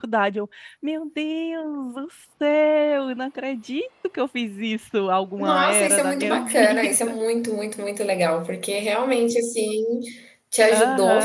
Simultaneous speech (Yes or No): Yes